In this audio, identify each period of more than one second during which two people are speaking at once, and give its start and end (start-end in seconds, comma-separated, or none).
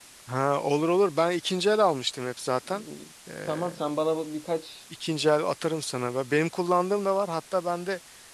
none